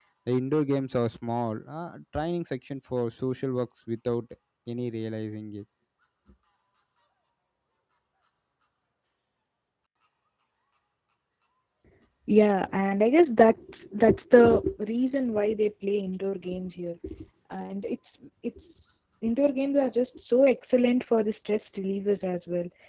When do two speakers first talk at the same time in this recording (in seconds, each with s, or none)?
none